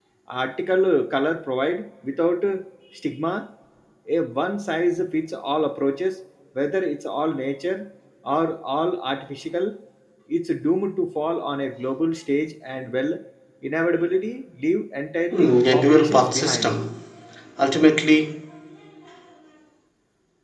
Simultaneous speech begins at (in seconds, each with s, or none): 15.3 s